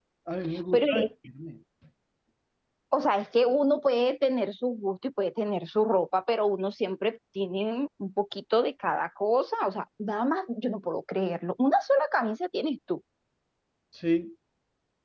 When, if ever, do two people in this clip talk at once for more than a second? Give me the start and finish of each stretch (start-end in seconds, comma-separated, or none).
none